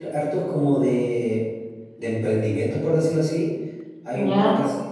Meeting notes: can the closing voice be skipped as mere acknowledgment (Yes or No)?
Yes